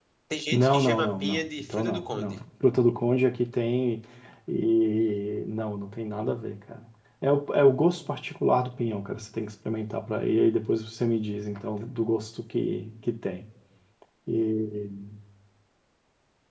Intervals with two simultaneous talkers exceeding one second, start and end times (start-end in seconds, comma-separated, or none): 0.5-2.4